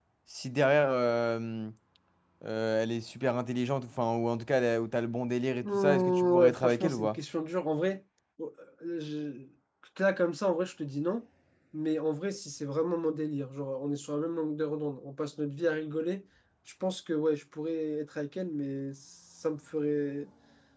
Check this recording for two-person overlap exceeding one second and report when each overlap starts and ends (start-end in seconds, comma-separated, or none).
5.6-7.2